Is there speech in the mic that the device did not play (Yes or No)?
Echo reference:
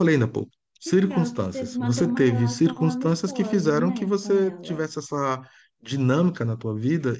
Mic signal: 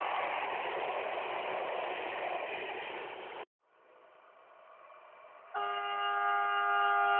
No